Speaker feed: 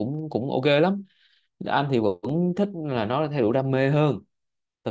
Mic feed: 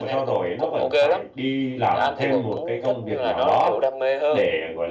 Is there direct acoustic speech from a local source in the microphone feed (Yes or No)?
Yes